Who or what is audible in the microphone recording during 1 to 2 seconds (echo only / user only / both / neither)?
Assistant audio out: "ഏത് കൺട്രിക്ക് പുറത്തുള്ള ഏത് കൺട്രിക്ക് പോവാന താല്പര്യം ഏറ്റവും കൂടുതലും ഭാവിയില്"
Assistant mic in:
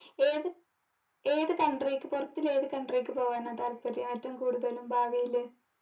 echo only